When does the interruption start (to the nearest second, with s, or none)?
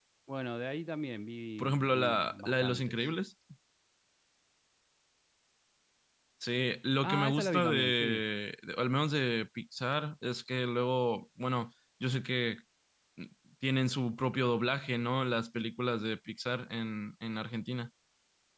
2 s